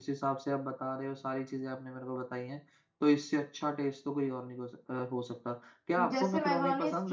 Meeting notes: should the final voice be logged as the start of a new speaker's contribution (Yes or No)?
Yes